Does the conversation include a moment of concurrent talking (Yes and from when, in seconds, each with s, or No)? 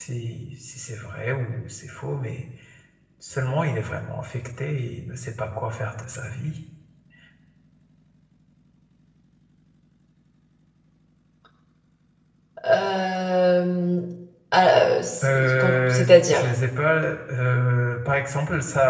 Yes, from 15.2 s